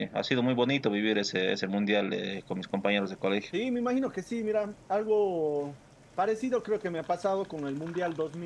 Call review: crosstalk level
none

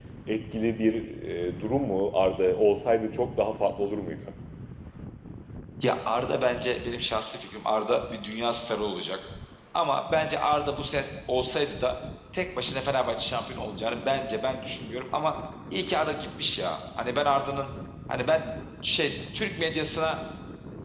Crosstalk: none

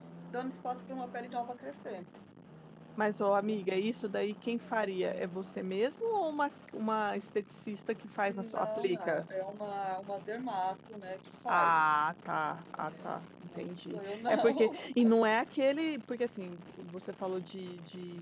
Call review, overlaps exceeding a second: present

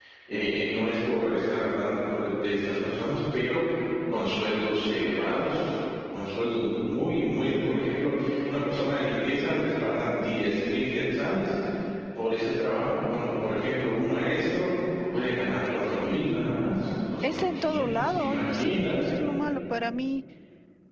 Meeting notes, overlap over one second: present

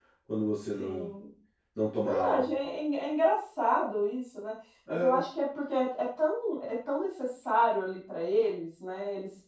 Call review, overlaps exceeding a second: none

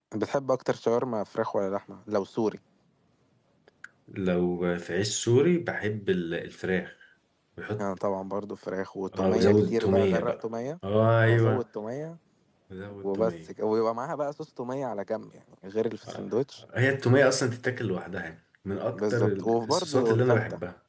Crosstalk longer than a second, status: present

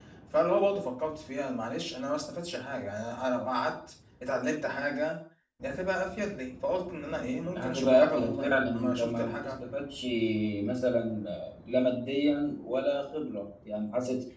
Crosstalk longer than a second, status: present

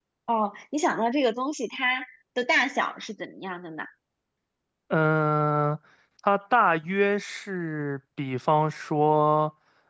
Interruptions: none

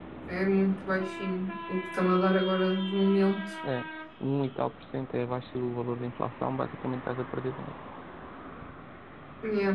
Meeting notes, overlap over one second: none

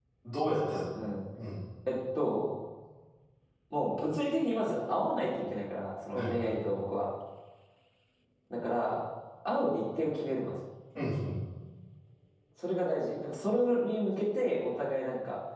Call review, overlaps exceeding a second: none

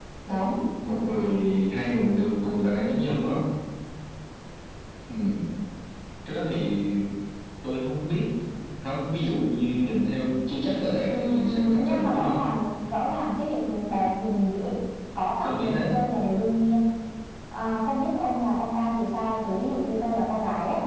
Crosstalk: present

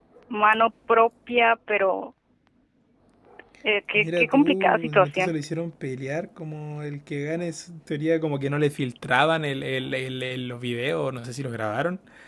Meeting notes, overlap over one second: present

